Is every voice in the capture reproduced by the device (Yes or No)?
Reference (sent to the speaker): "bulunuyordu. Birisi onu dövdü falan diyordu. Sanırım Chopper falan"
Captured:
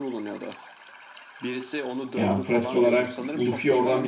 No